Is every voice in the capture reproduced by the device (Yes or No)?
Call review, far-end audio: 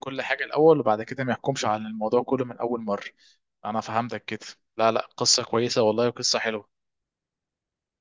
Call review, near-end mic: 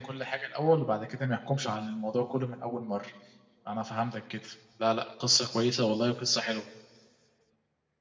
Yes